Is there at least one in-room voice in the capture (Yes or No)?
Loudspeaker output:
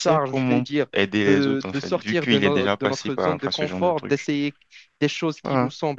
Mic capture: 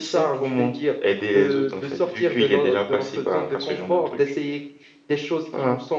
No